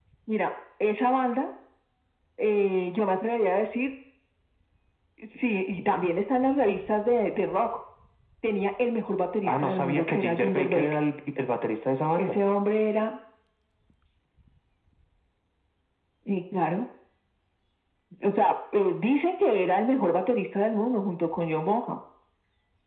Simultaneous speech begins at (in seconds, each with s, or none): 9.4 s